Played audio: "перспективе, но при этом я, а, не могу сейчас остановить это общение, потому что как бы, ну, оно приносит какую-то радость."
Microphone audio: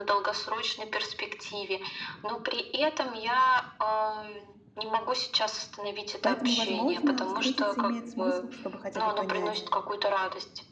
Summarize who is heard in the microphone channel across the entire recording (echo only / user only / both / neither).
both